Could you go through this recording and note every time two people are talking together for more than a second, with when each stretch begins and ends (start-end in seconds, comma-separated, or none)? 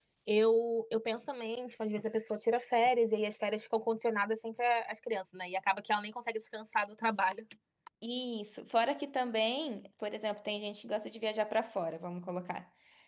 none